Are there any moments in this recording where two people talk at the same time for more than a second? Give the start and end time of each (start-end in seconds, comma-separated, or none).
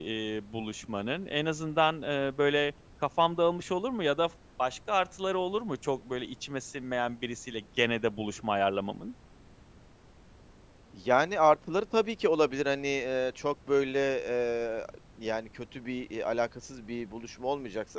none